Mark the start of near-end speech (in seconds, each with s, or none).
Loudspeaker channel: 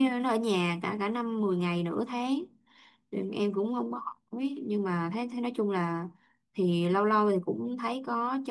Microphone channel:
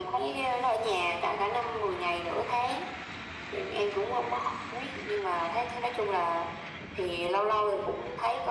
none